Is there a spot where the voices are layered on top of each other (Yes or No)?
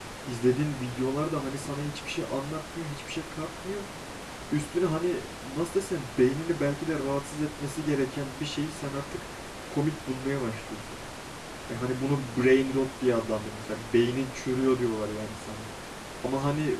No